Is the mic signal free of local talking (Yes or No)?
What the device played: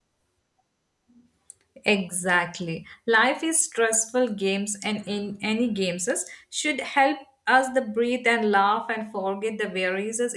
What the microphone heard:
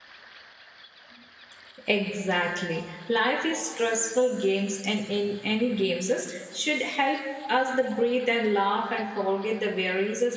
Yes